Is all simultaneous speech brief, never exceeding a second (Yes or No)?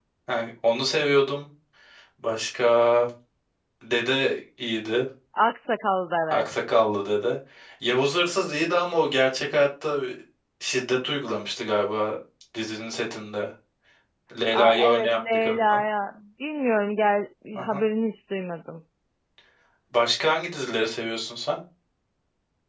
No